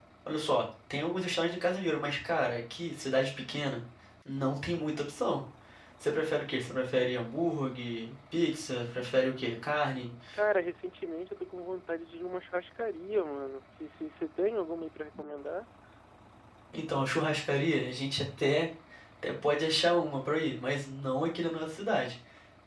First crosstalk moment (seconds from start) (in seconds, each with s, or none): none